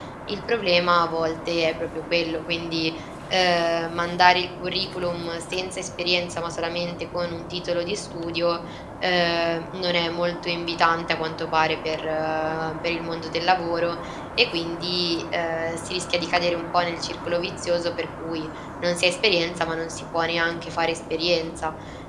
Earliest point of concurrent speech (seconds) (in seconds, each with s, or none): none